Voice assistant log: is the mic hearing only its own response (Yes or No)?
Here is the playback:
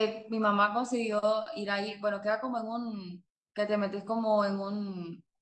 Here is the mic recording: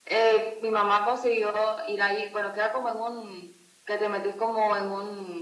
Yes